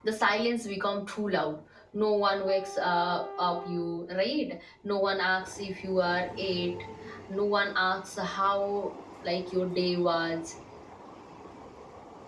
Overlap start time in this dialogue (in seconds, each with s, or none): none